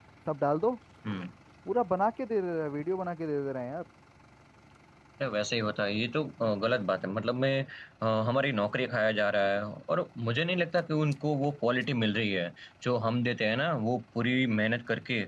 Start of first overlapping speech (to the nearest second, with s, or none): none